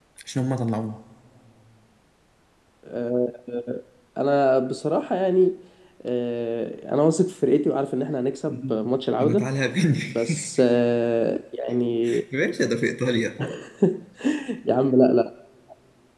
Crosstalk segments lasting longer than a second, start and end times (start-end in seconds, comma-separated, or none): none